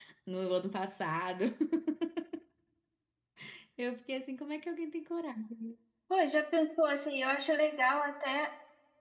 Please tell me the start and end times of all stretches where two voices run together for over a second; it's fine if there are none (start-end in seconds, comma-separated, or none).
none